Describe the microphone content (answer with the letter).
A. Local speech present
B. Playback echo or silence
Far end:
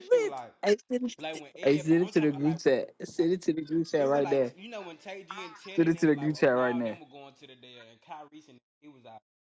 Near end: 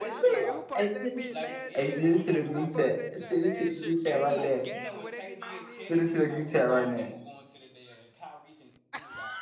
A